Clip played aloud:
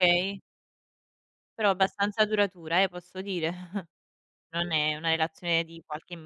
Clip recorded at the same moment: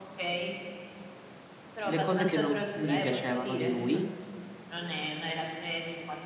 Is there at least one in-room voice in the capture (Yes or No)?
Yes